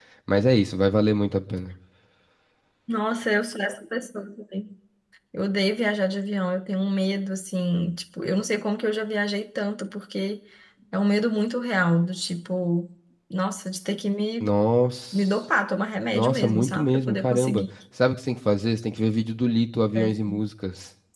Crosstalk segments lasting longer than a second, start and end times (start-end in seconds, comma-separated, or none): 16.1-17.6